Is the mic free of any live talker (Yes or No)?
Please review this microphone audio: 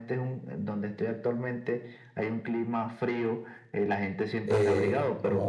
No